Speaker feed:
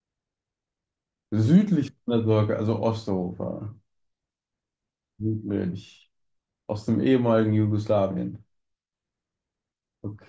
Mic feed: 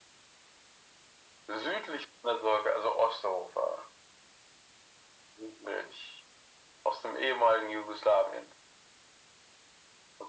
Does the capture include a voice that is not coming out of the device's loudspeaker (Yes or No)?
No